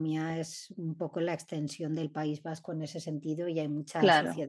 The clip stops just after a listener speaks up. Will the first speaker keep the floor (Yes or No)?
Yes